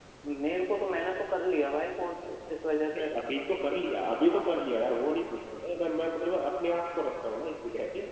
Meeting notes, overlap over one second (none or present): none